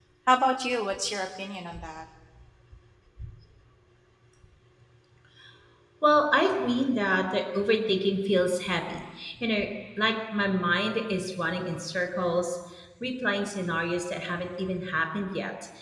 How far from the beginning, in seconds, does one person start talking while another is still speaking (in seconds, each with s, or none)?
none